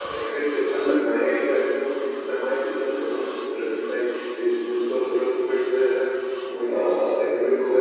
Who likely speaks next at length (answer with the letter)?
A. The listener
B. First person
A